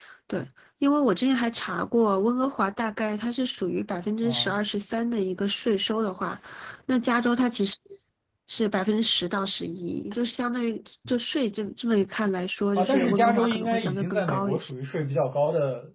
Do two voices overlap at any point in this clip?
Yes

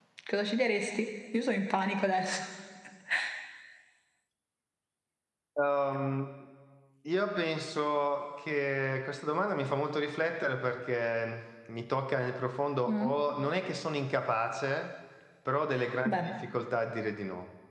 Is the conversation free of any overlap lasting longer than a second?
Yes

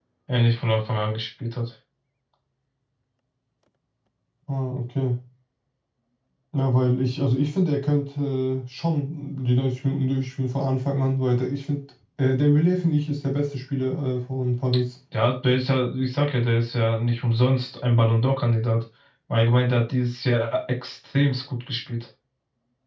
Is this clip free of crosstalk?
Yes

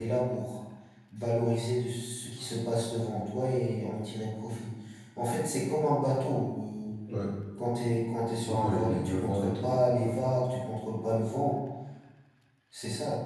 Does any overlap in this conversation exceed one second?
Yes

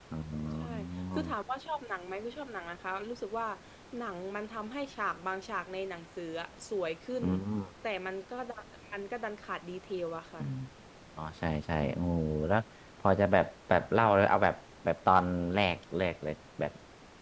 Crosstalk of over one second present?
No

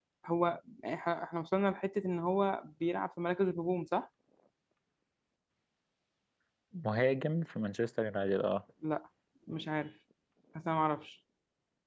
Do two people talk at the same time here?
No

